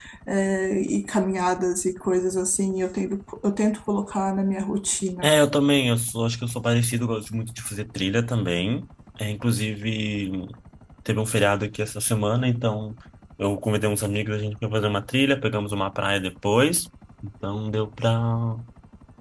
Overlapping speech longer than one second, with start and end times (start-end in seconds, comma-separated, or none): none